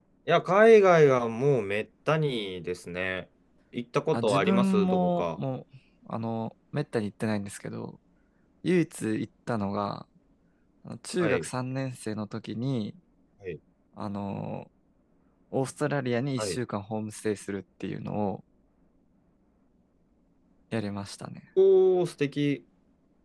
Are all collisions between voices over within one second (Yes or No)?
No